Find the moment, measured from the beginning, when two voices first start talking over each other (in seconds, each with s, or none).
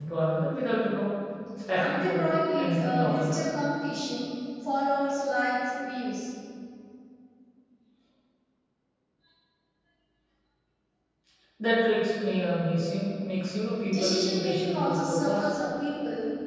1.8 s